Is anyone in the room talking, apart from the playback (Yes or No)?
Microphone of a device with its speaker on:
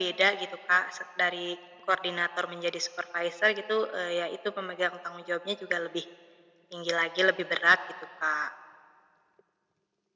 No